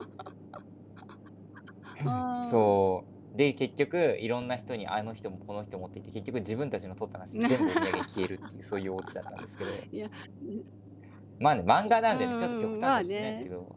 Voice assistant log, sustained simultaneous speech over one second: present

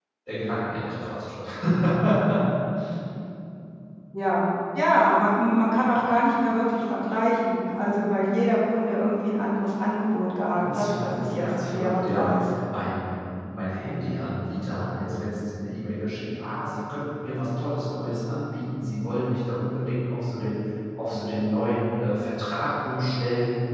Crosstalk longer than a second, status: present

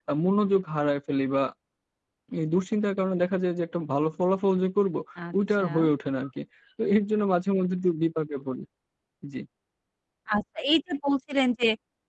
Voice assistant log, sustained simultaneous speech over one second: none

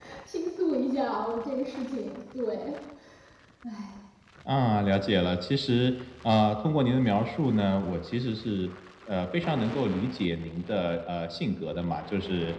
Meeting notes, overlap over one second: none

